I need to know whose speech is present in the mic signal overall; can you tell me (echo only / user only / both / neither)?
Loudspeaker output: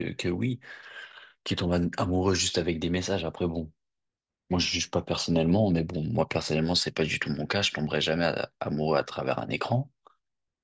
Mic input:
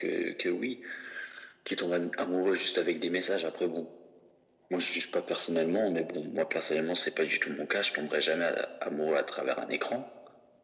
echo only